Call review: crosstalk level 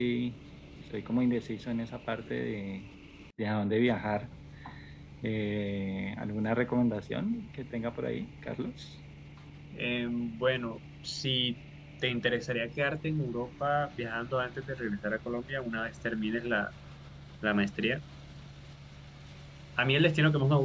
none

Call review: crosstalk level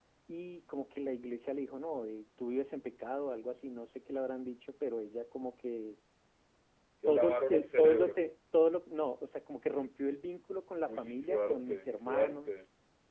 present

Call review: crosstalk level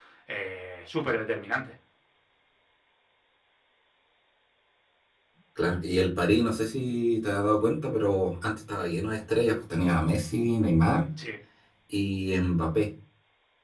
none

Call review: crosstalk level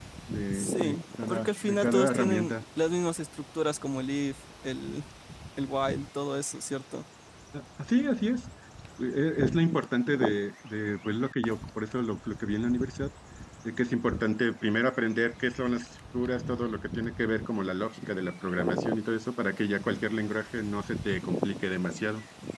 present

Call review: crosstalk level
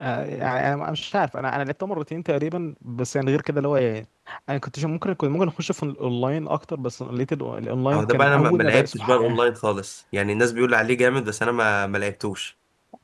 present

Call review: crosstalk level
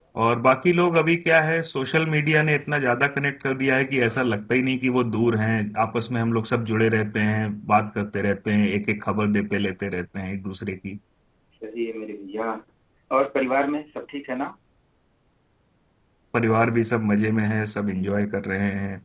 none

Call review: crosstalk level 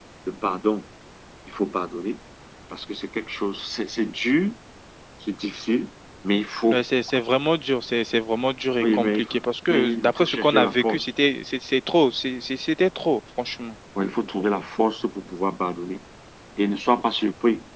present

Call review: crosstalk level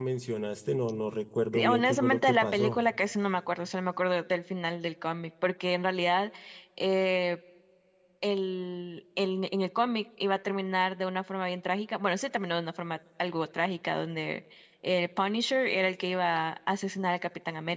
present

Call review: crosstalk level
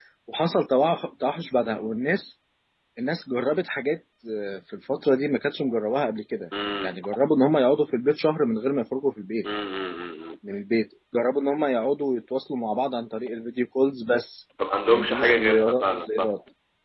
present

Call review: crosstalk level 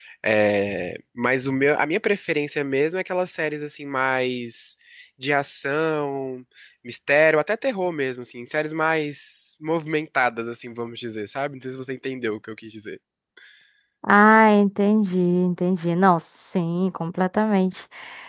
none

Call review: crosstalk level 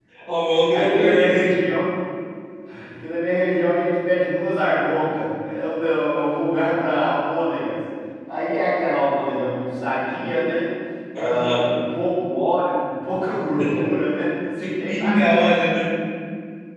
present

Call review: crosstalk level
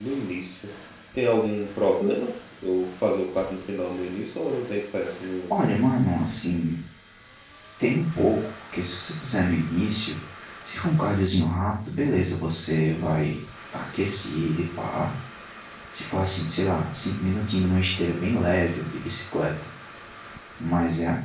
none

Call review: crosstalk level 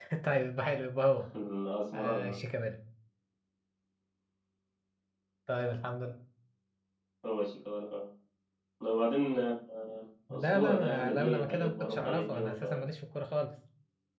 present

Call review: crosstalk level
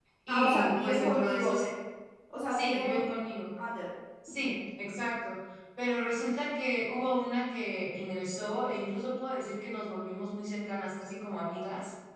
present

